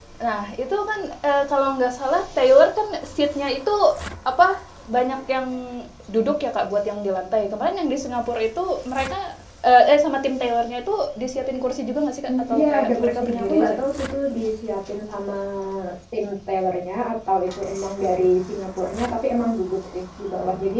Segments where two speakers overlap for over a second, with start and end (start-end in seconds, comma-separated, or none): 12.5-13.8